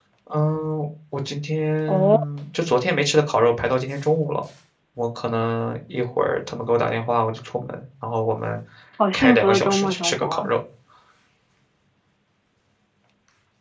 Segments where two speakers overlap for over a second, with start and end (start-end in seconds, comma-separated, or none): 9.1-10.5